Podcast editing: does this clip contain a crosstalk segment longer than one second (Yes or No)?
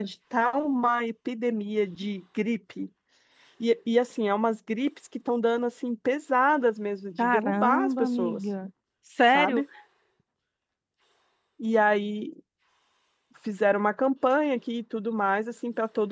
Yes